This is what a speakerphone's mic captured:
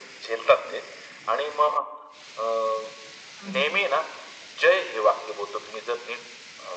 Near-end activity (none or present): present